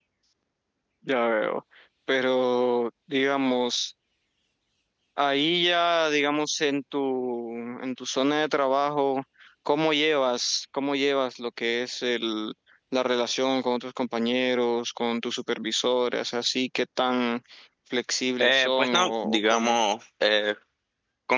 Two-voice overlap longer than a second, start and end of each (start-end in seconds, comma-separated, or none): 18.4-19.8